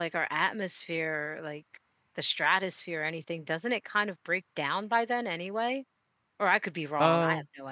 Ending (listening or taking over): taking over